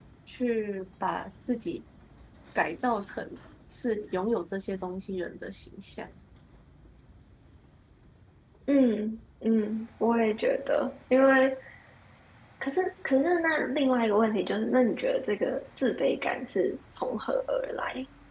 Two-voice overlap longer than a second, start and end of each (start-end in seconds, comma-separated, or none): none